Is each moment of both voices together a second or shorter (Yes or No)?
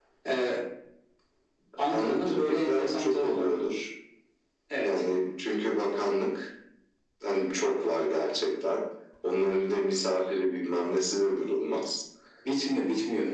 No